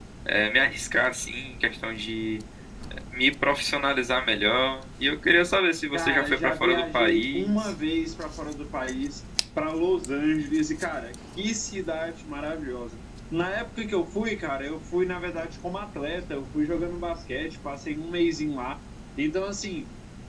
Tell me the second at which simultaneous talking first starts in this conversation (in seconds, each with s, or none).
5.9 s